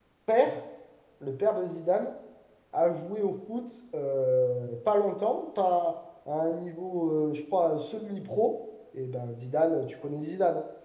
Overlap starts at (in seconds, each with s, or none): none